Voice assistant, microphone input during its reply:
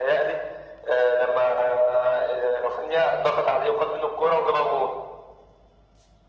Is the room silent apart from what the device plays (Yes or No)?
Yes